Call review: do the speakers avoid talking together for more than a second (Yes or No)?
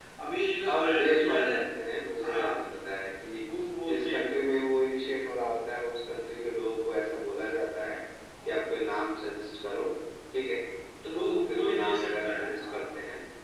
No